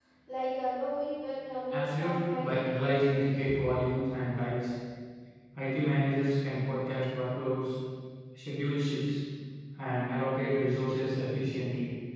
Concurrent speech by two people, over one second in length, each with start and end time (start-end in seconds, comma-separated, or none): 1.7-3.1